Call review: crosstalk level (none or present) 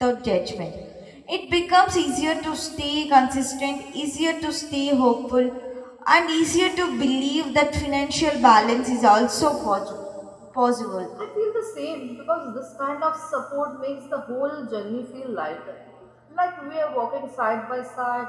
none